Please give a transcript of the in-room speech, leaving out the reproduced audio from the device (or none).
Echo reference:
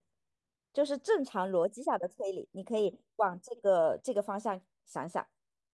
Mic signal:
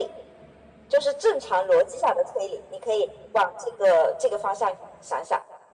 none